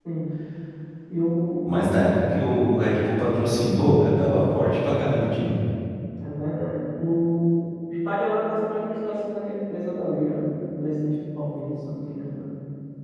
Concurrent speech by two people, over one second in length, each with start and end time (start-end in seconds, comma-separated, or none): none